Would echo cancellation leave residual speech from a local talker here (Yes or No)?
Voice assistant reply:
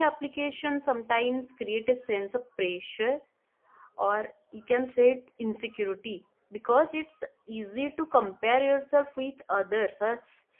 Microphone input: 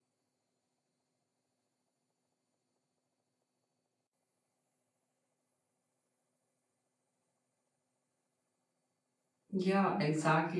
Yes